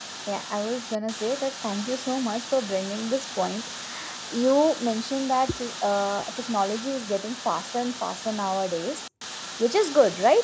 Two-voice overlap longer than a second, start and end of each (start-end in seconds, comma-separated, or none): none